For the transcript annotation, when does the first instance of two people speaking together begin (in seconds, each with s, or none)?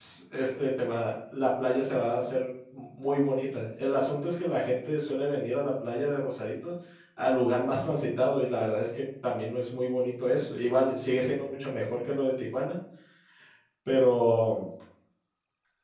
none